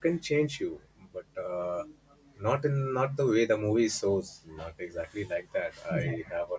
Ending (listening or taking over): listening